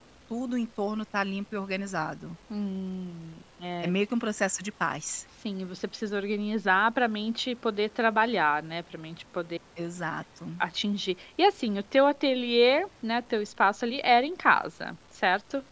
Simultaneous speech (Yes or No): No